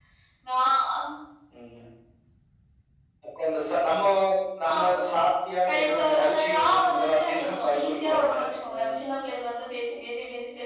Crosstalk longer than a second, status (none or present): present